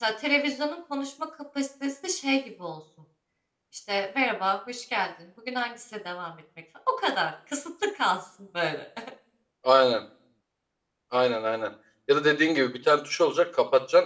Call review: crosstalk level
none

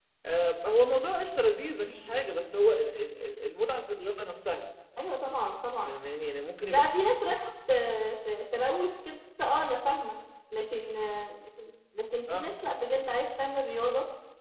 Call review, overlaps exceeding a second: none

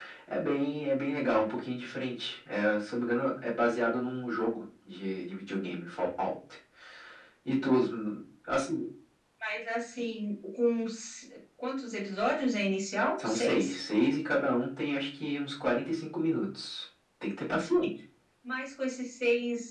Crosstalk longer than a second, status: none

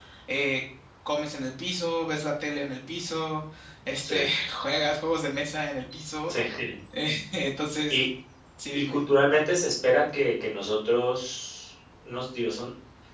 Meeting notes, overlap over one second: none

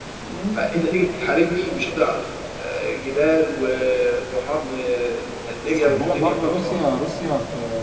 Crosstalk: present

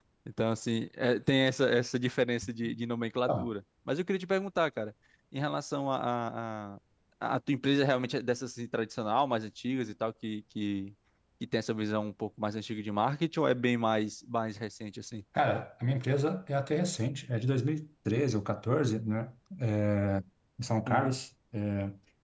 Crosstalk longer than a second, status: none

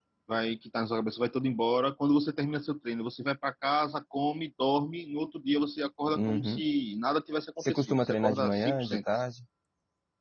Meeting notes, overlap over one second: present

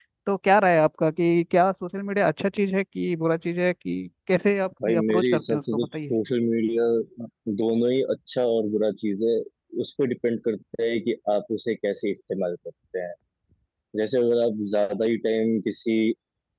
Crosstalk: present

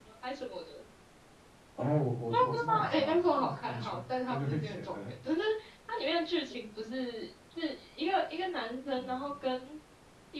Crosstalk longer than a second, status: present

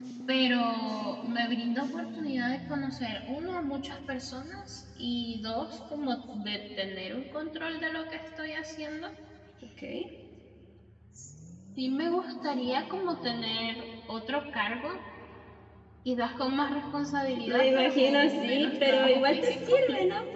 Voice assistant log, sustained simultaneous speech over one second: present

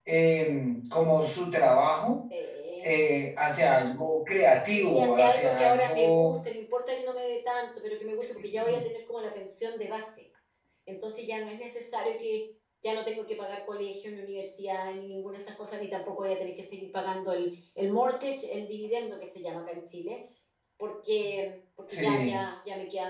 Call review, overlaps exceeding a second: present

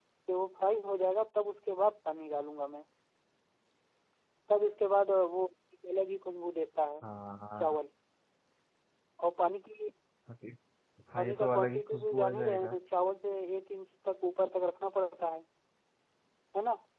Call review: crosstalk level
present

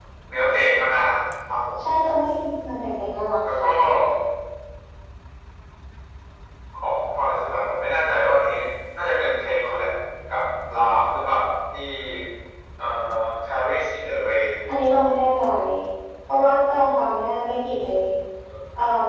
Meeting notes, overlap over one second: none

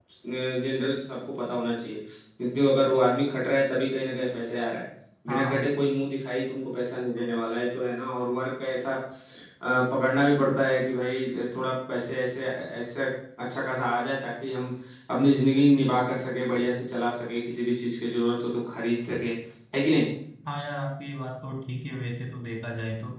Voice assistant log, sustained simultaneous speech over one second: none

